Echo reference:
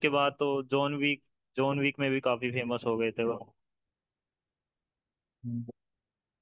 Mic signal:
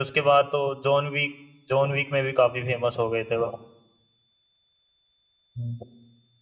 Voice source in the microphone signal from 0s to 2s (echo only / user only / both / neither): echo only